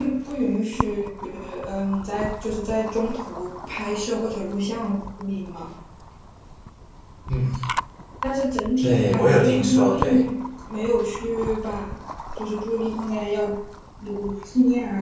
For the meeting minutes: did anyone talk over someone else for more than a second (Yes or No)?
Yes